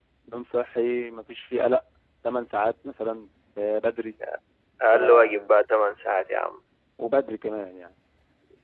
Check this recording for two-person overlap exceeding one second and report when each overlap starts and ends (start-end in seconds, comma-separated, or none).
none